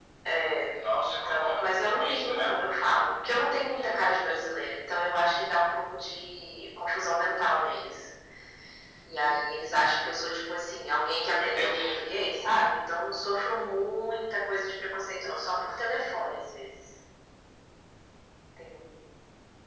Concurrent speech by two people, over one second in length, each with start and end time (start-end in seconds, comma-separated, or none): 1.0-2.5